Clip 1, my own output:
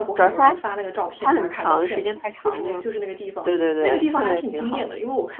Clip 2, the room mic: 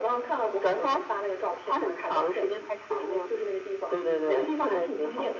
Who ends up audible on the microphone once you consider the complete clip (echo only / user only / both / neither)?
echo only